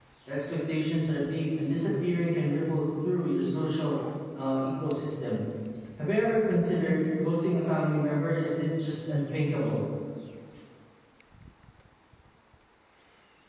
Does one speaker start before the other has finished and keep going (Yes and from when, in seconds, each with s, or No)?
No